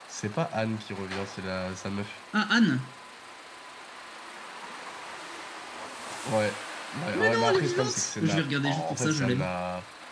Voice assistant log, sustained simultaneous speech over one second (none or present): present